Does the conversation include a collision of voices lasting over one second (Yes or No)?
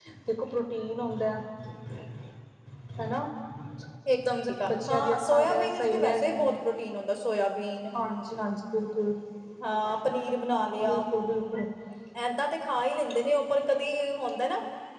Yes